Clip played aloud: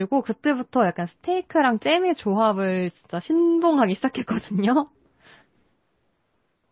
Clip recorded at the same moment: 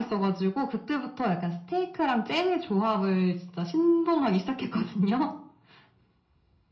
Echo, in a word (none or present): present